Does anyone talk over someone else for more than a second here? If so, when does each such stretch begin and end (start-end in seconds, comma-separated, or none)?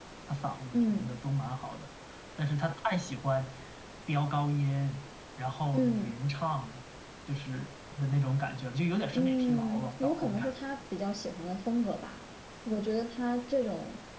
9.1-10.5